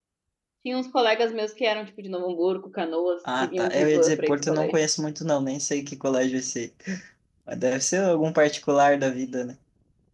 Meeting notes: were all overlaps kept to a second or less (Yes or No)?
No